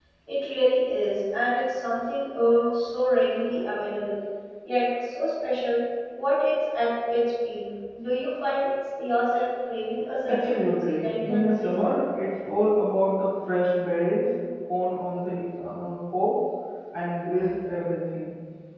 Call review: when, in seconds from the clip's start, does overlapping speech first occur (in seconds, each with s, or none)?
10.2 s